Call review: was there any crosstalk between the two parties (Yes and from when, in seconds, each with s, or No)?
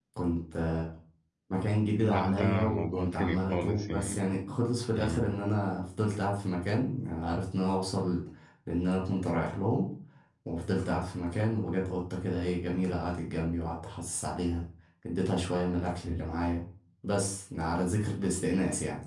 Yes, from 2.0 s